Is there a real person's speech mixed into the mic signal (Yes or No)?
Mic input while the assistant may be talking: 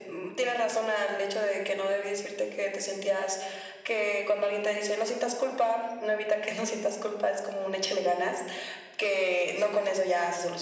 No